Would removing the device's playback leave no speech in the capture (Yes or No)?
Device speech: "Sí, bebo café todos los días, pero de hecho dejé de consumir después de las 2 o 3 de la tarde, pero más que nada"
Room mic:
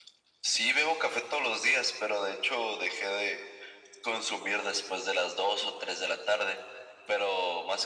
Yes